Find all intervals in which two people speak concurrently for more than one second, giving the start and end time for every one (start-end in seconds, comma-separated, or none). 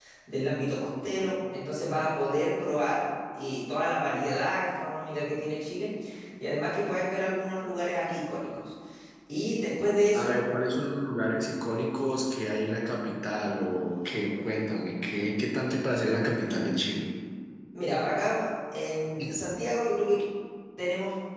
none